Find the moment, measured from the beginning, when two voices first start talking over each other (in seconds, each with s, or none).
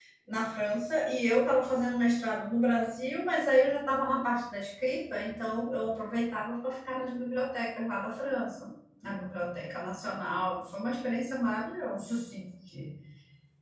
none